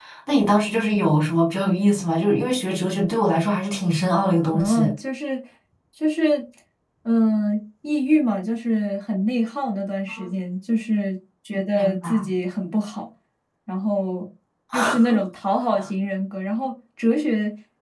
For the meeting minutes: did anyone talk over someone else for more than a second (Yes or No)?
No